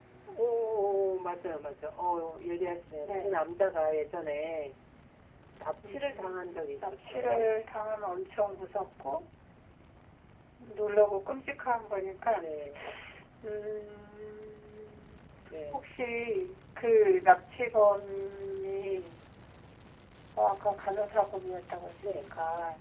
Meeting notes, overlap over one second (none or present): present